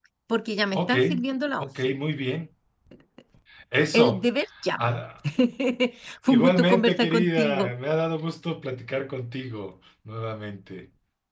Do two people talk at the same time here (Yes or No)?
Yes